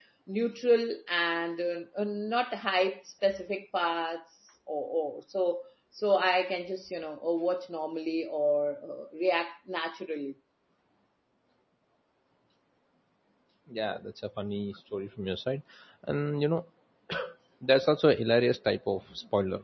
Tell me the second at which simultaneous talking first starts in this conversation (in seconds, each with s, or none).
none